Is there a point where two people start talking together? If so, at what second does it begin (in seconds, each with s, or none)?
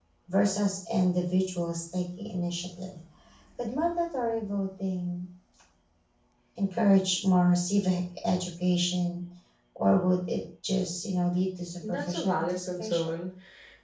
11.8 s